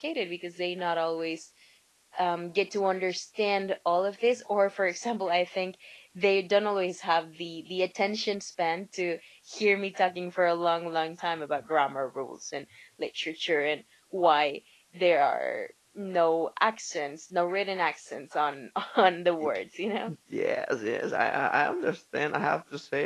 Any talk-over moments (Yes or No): No